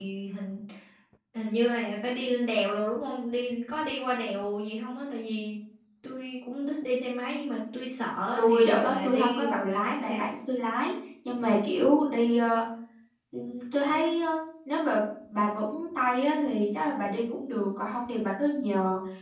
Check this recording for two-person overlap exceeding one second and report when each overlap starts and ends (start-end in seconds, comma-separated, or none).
8.4-10.3